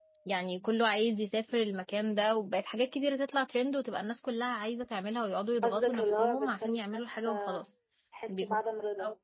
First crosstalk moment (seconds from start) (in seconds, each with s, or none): 5.6 s